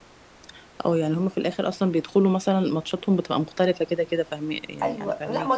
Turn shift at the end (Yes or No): Yes